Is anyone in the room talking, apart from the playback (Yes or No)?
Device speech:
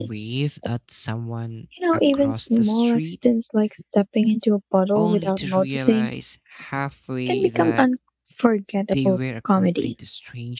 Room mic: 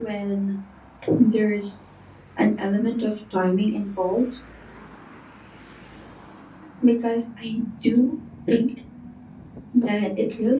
Yes